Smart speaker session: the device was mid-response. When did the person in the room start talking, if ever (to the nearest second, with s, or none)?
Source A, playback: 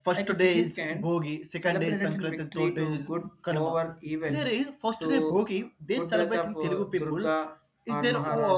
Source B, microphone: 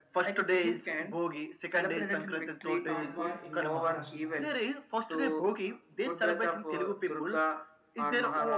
3 s